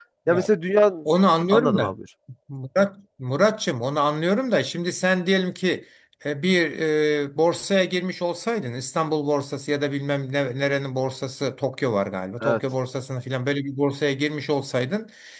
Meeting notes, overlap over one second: none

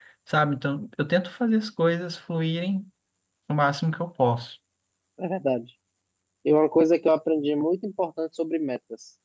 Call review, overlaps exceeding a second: none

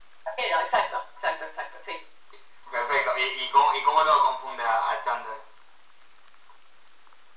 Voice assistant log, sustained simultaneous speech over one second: none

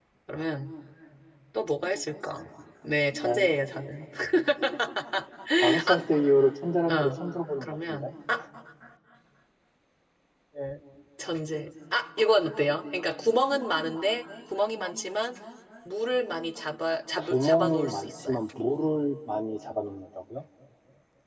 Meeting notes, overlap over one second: present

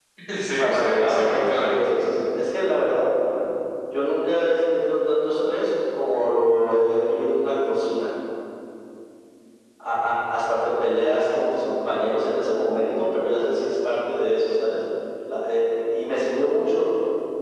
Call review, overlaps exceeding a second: present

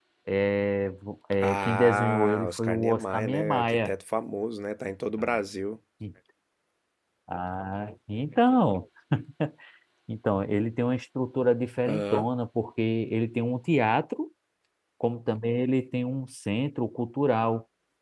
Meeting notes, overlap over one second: present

